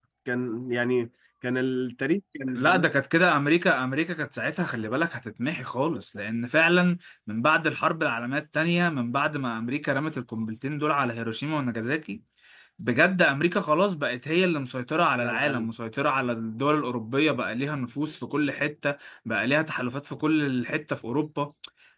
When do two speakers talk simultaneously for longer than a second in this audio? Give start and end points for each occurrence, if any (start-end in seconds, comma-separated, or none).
none